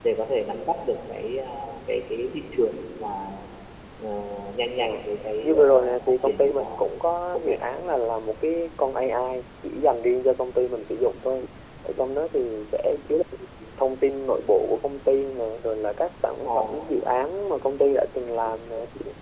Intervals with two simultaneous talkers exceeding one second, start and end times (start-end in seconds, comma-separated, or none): 5.4-6.8